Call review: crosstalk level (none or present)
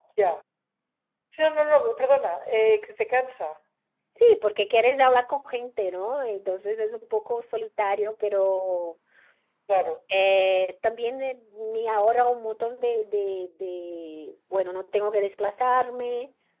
none